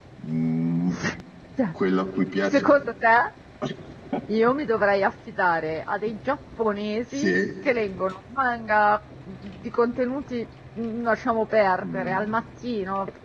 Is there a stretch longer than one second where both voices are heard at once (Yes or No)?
No